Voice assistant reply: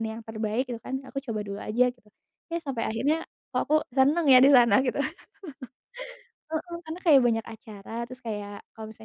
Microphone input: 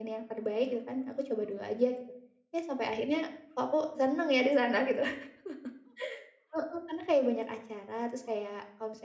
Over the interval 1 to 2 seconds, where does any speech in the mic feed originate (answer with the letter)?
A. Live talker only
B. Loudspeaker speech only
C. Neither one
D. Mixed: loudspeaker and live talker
B